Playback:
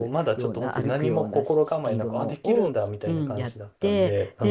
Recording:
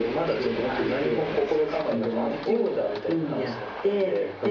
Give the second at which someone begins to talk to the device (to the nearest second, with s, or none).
none